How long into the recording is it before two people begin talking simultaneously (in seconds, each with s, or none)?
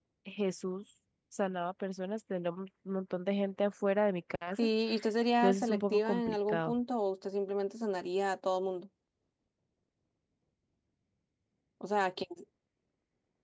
5.4 s